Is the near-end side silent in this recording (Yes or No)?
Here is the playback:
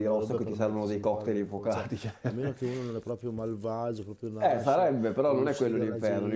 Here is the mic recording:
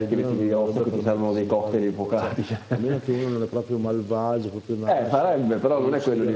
Yes